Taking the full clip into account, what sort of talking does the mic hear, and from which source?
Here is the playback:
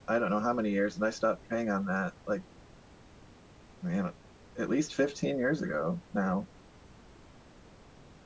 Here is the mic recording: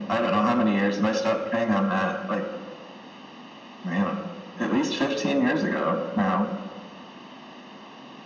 echo only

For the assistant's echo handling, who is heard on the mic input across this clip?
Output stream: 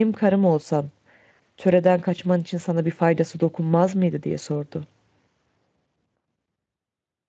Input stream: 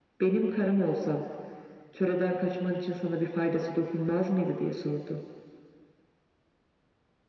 echo only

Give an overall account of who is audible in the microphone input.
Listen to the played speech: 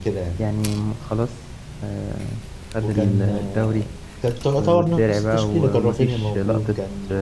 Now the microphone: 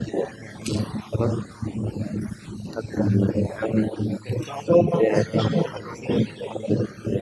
echo only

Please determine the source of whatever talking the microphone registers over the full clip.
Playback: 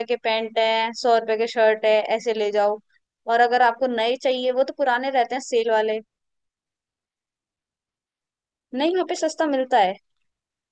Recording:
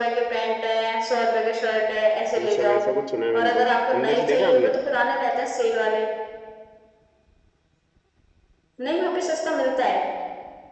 both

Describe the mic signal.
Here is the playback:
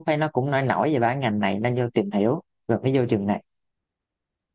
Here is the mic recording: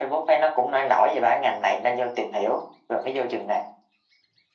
echo only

